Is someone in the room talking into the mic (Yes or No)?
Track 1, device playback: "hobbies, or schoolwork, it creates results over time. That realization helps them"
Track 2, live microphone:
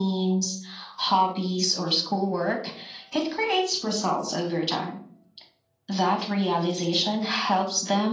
No